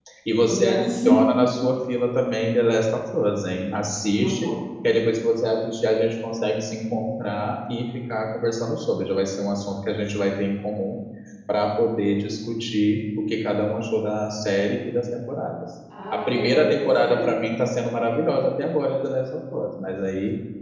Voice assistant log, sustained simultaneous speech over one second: present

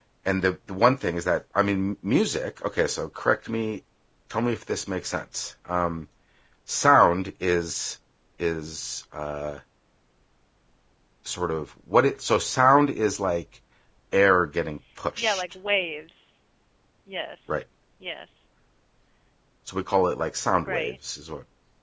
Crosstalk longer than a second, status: none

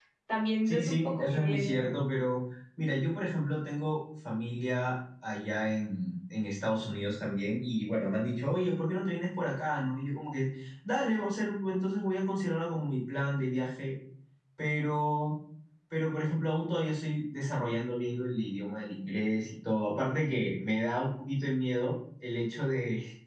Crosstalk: present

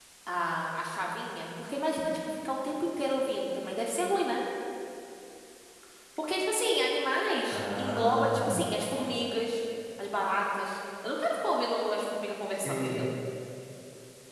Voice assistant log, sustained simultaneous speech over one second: present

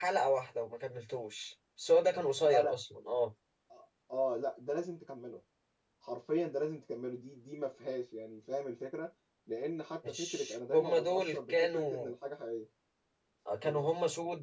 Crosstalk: present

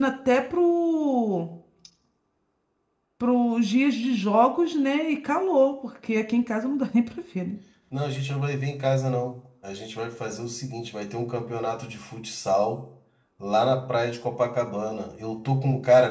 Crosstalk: none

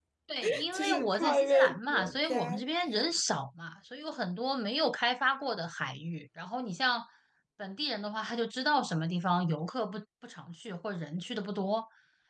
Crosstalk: present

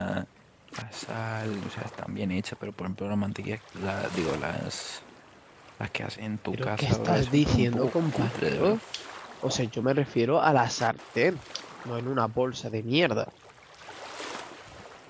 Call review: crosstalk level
present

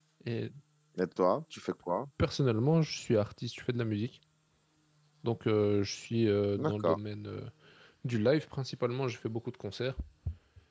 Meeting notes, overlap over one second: none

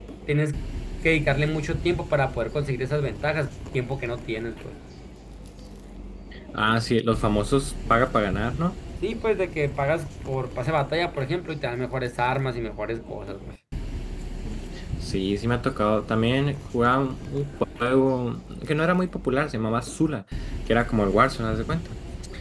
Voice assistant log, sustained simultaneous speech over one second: none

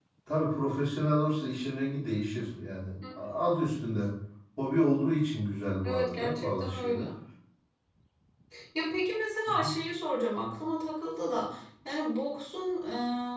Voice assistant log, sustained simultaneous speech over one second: present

